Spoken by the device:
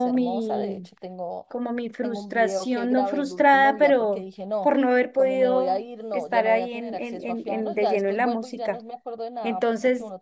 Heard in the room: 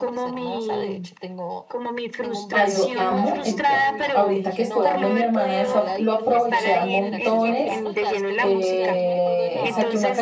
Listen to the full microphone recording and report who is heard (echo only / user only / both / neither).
both